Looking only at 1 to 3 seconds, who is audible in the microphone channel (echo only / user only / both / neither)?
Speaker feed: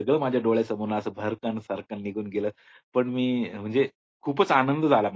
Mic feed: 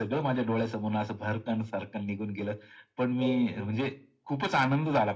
echo only